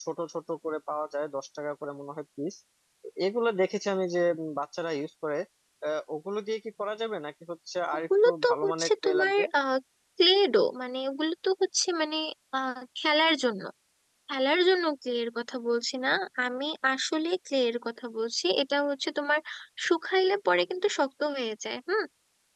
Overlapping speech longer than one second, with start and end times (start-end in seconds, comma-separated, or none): 7.9-9.4